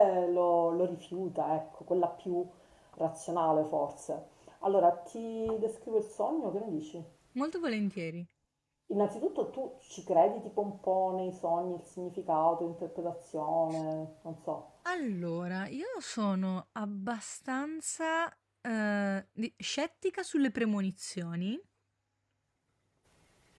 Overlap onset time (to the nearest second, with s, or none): none